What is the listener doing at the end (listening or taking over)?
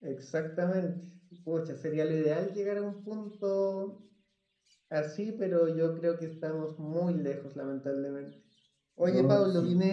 listening